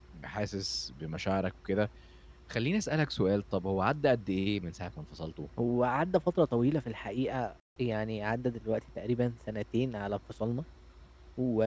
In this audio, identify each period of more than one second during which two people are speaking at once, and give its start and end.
none

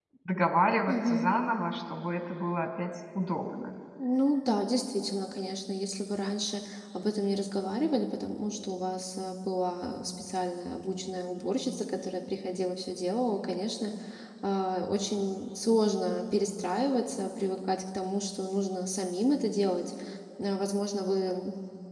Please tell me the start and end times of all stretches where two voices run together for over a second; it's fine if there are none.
none

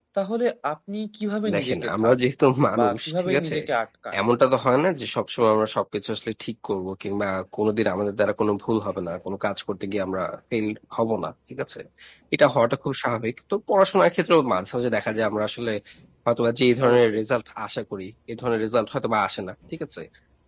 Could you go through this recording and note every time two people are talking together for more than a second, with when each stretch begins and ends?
1.5-3.6

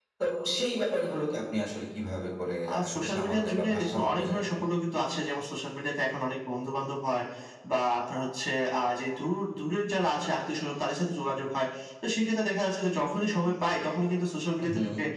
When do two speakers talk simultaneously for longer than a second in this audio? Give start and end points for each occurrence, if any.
2.7-4.6

